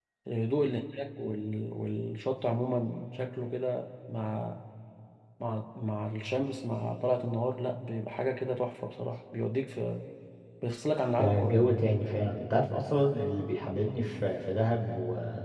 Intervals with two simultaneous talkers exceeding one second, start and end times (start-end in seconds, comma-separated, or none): none